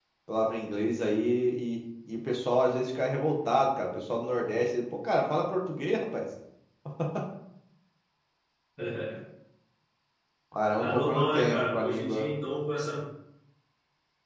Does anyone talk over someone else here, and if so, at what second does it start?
10.8 s

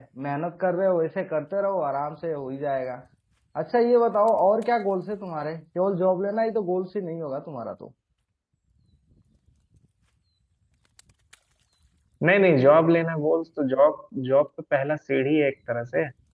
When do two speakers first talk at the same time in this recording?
none

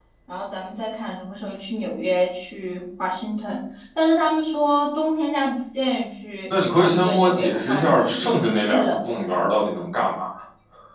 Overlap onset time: 6.8 s

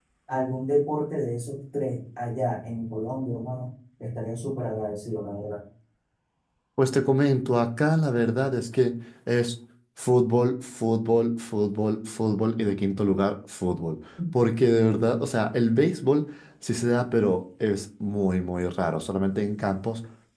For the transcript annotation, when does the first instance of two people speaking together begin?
none

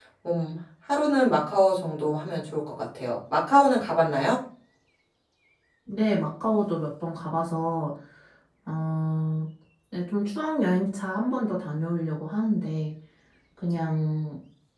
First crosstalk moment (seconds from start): none

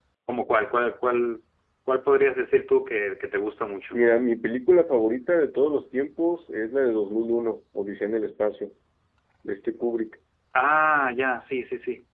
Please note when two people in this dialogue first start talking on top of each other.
none

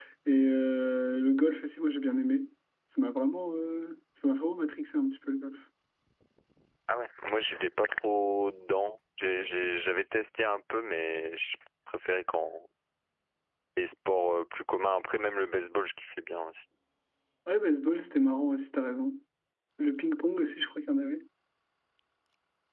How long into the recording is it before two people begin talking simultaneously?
none

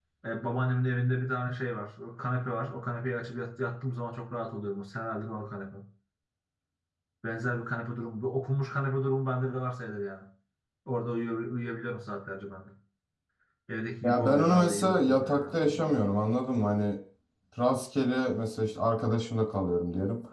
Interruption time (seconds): 14.0 s

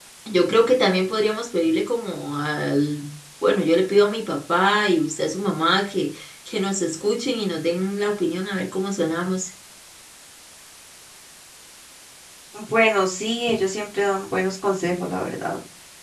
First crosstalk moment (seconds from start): none

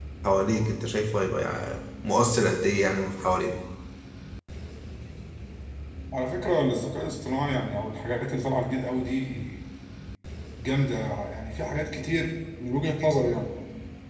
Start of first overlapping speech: none

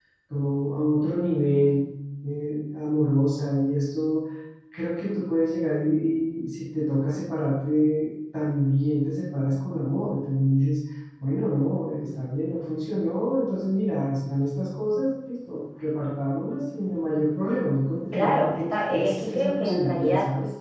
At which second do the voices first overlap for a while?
18.1 s

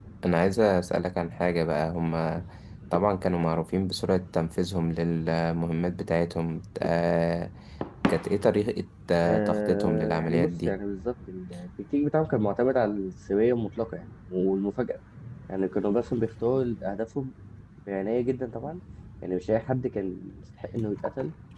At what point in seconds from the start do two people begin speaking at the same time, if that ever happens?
9.2 s

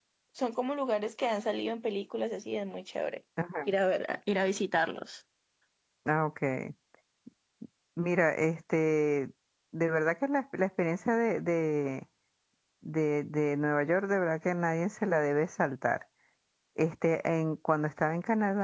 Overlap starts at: none

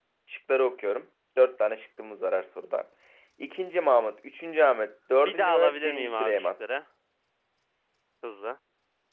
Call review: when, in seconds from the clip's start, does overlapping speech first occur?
5.2 s

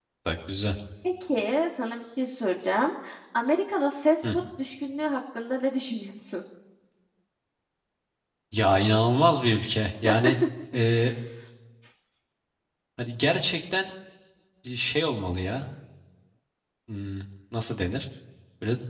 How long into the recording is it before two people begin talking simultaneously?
none

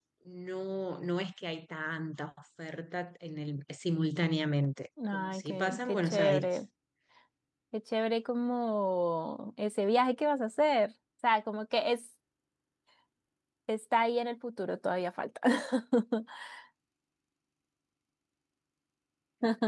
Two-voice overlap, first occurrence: 5.0 s

